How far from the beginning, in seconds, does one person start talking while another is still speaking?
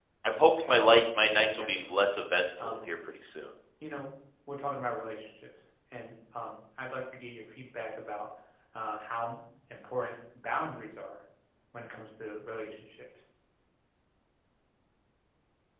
0.6 s

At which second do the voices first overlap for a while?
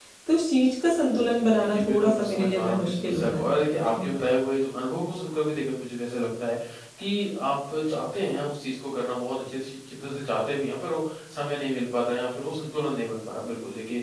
1.3 s

